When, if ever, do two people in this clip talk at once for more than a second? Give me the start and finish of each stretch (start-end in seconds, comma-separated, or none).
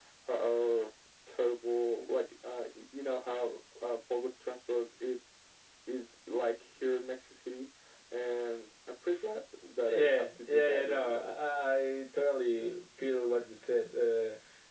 9.9-11.3